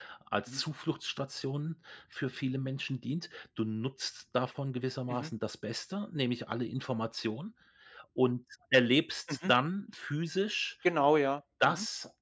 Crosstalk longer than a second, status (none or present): none